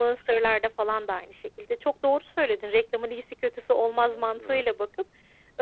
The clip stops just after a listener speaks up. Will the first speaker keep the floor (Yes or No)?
Yes